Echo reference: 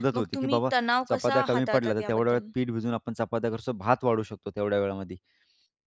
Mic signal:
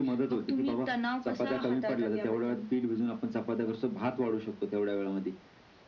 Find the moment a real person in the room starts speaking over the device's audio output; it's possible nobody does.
none

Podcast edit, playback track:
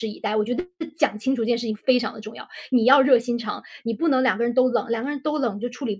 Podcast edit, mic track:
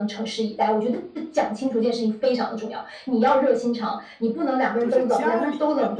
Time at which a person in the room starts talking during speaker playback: 4.8 s

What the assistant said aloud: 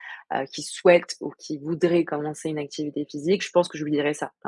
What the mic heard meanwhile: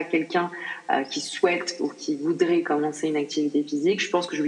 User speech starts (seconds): none

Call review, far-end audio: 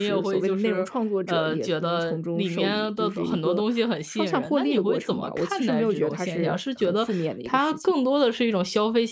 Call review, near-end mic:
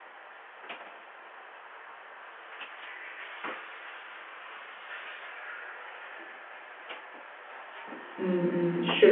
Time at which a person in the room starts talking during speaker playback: 8.2 s

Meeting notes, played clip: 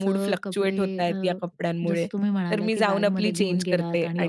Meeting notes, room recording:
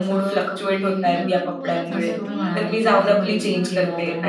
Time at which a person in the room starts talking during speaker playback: 1.0 s

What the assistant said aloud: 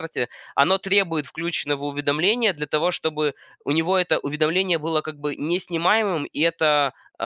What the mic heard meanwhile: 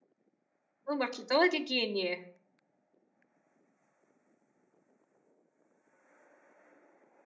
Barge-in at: 0.9 s

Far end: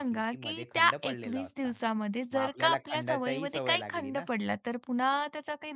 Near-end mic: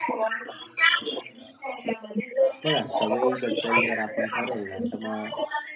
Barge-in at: 2.6 s

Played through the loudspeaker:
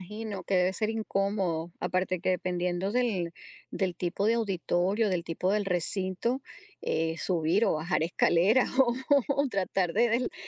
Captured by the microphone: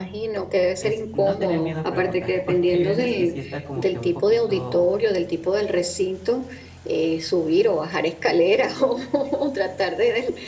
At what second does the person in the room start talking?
0.8 s

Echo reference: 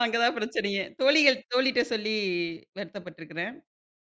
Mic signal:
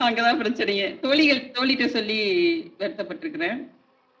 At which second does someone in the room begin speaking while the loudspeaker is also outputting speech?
none

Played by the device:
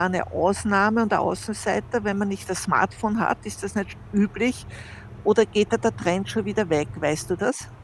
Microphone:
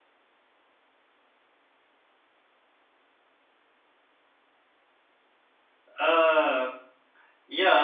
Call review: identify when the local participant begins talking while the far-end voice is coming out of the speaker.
6.0 s

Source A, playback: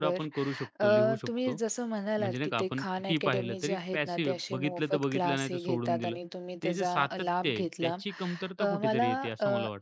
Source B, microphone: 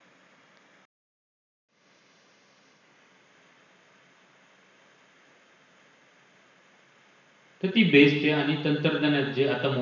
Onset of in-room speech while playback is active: 7.6 s

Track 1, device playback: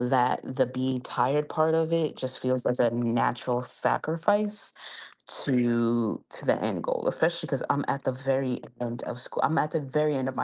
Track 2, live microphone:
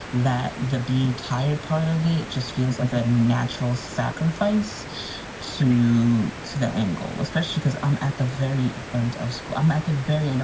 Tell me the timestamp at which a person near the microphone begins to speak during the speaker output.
none

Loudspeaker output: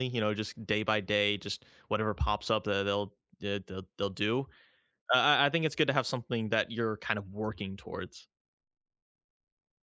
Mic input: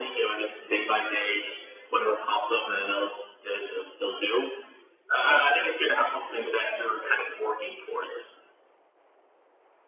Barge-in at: none

